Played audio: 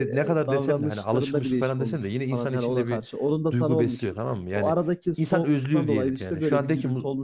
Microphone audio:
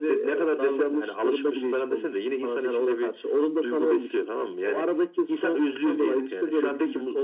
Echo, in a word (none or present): present